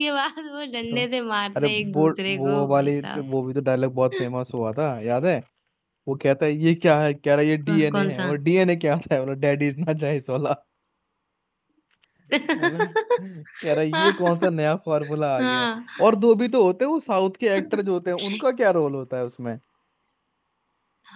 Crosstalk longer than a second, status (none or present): present